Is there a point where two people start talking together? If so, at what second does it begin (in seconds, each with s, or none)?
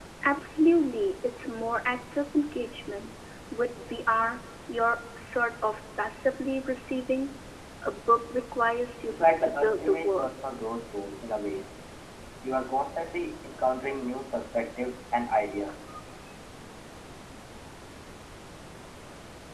9.1 s